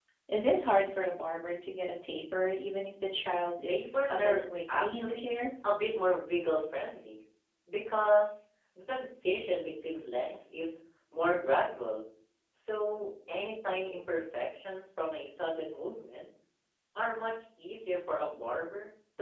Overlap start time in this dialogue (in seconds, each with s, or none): 3.7 s